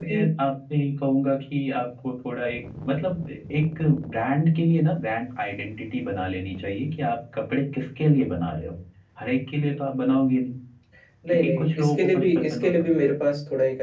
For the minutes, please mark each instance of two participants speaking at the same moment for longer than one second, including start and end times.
11.3-12.7

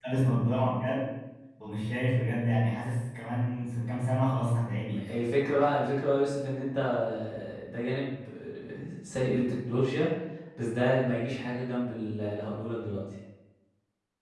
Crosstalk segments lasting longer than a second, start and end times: none

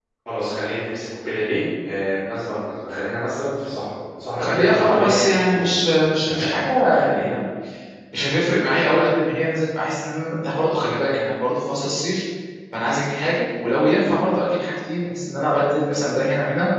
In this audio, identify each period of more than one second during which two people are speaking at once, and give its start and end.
4.4-5.8

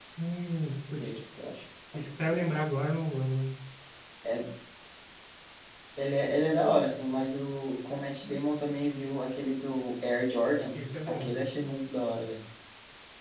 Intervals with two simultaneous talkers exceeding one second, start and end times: none

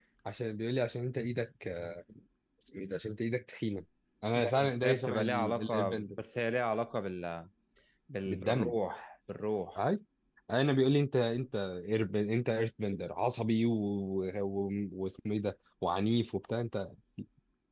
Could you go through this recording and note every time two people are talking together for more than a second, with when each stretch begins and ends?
4.3-6.2

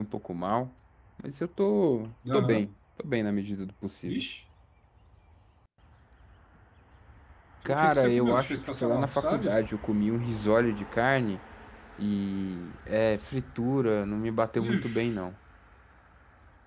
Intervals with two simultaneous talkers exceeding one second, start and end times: 7.7-9.6

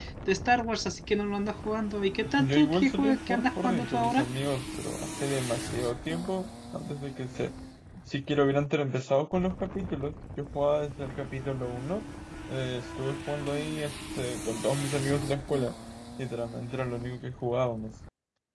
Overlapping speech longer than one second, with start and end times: 2.4-4.2

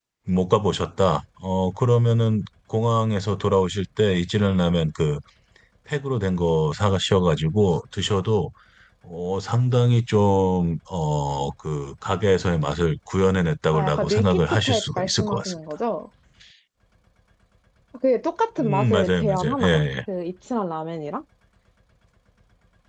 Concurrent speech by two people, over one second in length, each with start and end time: 13.7-15.5, 18.6-19.8

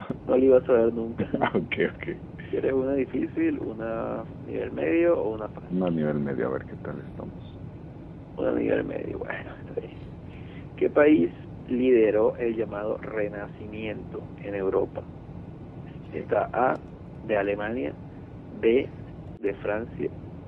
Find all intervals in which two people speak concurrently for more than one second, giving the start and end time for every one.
none

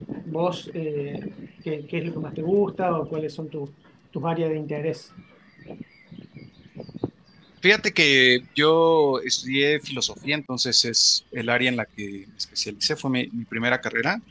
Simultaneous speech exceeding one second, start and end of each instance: none

